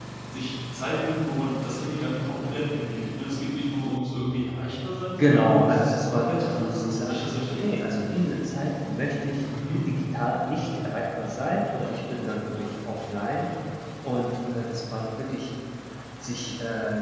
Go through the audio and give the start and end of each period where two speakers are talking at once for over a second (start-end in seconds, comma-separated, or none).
5.2-7.6